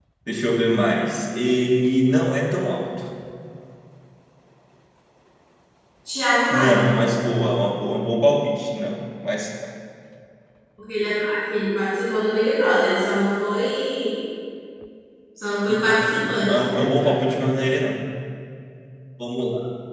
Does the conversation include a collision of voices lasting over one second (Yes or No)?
Yes